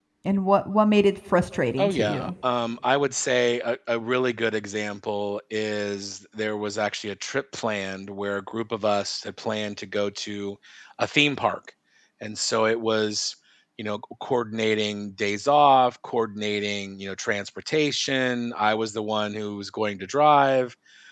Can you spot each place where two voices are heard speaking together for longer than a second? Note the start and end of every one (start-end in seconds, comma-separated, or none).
none